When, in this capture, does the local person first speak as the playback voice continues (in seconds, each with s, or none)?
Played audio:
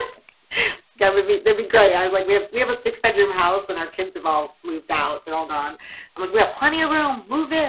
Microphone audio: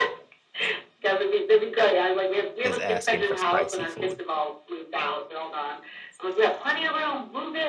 2.6 s